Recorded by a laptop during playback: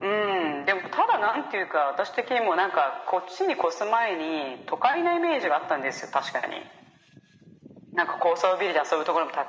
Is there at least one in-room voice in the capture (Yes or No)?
No